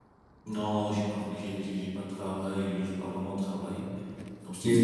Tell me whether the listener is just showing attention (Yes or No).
Yes